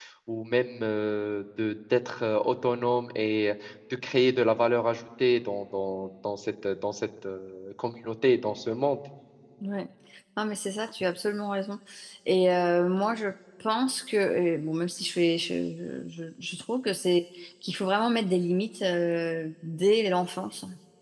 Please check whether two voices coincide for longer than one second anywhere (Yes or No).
No